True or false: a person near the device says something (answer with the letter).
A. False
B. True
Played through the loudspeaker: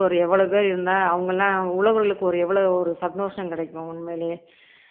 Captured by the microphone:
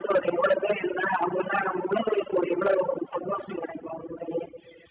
A